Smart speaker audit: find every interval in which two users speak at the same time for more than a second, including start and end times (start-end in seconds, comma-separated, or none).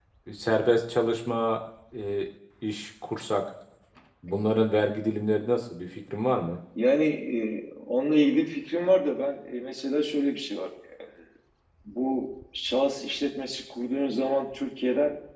none